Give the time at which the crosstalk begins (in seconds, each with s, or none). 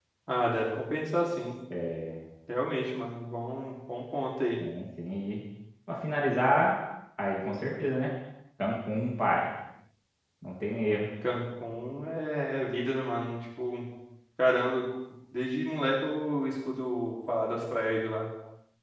none